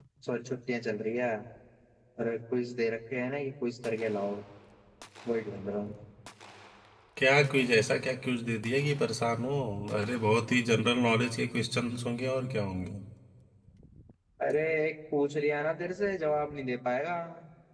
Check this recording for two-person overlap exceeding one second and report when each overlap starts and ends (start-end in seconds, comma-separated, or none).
none